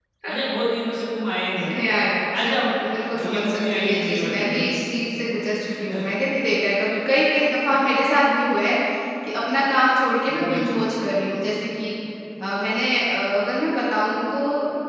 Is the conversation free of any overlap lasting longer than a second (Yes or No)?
No